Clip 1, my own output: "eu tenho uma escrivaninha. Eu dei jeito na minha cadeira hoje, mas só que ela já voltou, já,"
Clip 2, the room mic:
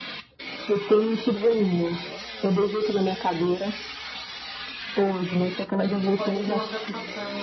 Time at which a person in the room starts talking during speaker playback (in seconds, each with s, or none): 6.2 s